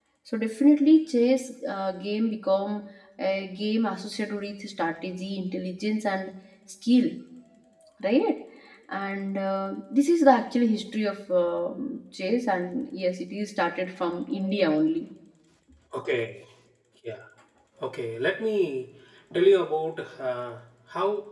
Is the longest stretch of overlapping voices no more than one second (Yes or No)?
Yes